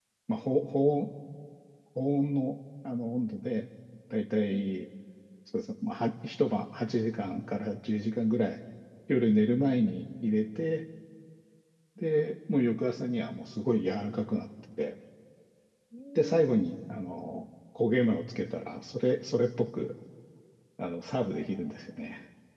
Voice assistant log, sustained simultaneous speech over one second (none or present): none